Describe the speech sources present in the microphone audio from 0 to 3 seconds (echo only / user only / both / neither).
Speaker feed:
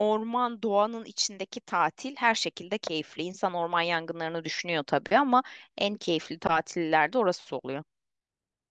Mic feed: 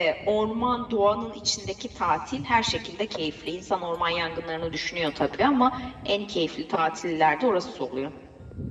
echo only